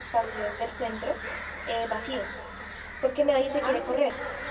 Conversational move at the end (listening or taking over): listening